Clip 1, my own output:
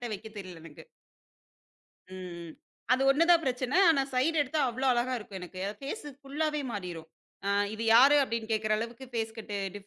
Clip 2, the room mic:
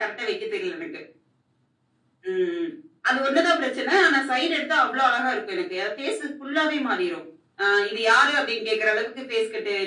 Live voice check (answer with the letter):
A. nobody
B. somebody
A